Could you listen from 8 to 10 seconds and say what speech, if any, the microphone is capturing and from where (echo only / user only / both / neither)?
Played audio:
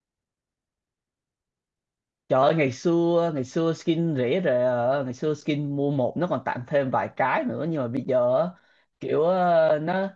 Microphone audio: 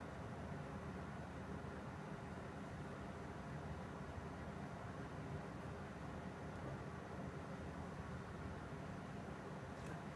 neither